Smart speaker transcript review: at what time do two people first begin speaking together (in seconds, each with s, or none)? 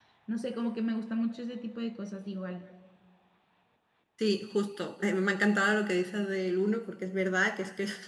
none